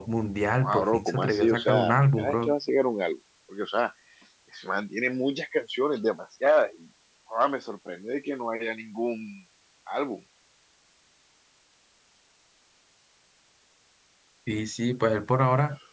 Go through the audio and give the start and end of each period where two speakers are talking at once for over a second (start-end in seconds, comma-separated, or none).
0.6-2.5